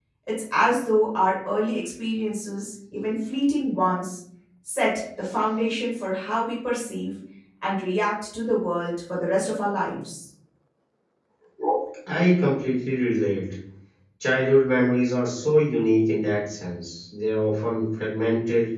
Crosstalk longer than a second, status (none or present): none